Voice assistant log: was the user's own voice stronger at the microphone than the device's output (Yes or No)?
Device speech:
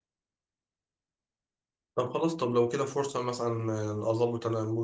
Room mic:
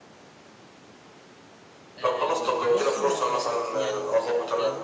No